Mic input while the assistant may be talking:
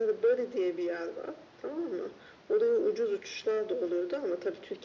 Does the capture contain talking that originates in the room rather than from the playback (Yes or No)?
No